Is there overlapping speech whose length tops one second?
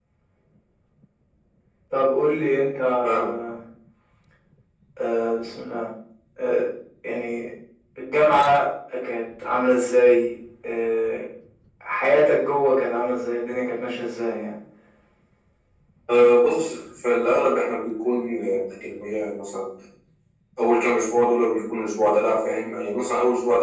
No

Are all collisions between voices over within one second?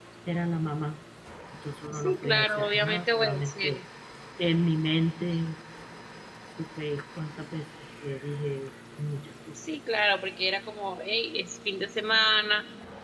No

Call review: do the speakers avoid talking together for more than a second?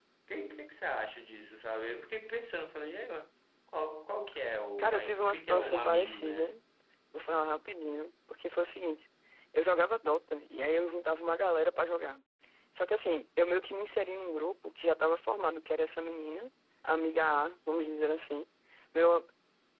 No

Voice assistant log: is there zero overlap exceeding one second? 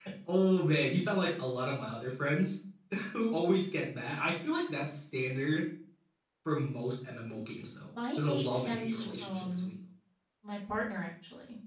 No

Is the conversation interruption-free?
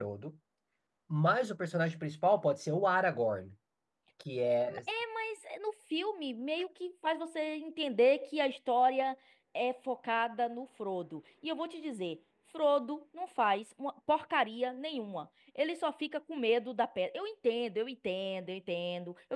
Yes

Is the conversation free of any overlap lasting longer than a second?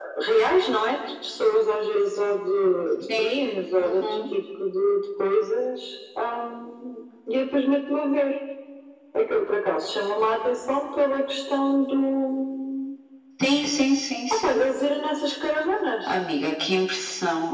Yes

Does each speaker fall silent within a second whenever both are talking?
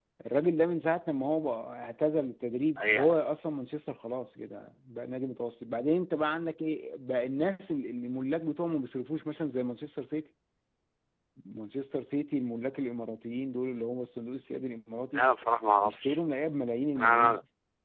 Yes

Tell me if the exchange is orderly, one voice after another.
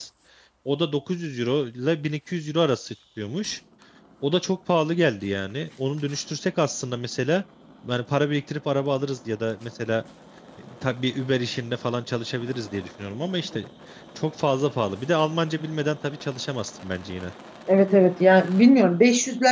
Yes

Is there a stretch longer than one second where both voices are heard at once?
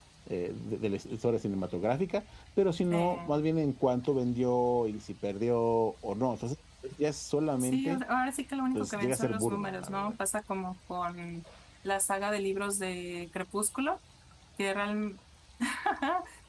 Yes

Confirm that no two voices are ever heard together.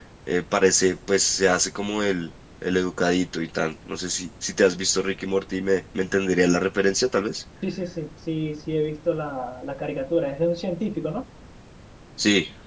Yes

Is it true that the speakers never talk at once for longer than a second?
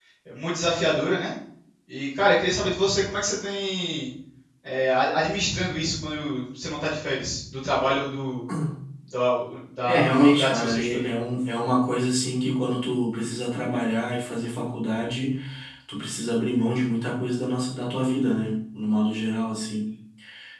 No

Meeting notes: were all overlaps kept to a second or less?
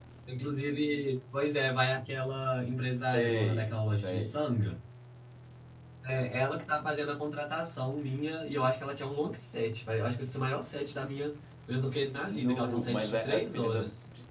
No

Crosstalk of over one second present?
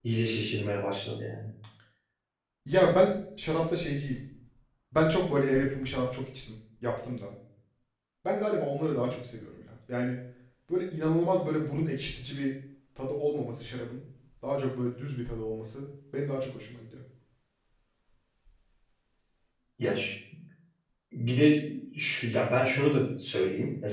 No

